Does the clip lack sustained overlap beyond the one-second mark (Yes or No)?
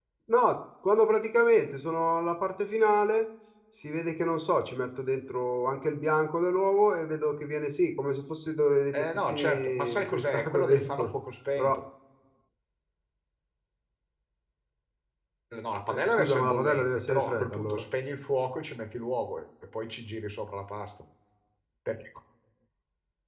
No